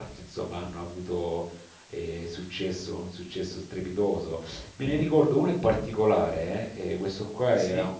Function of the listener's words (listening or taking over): listening